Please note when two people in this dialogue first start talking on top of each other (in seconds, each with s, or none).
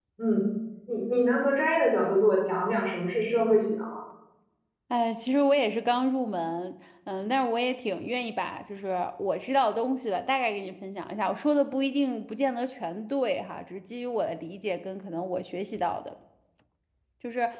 none